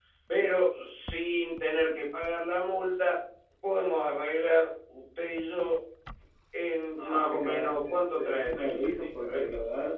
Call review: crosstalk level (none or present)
present